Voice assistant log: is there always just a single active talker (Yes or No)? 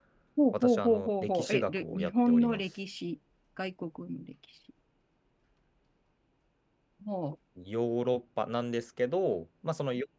No